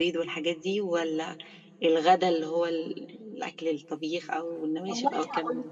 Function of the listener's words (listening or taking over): taking over